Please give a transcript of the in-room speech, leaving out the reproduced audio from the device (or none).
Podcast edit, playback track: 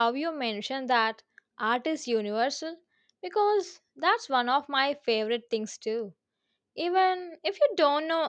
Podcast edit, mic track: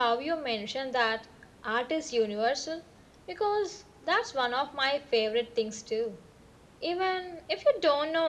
none